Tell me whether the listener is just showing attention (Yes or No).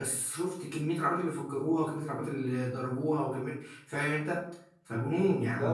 No